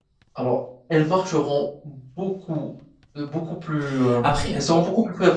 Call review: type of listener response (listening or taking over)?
listening